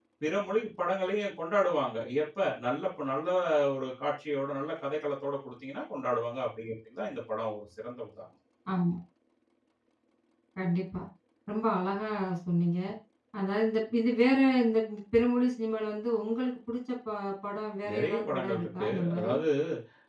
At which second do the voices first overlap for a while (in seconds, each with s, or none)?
17.8 s